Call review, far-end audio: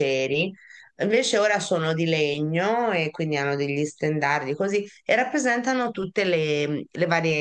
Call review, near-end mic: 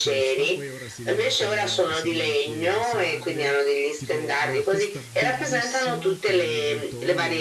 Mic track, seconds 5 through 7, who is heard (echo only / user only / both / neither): both